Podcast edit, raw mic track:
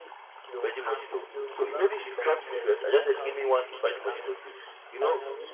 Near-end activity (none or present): present